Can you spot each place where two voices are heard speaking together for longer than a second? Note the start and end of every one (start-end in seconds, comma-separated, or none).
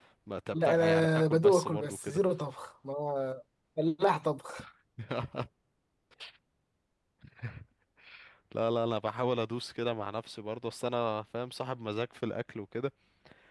0.5-2.2